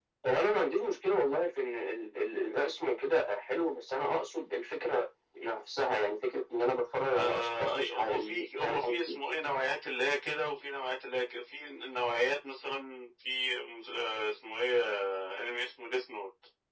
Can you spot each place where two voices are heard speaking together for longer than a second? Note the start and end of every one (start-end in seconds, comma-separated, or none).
7.2-9.2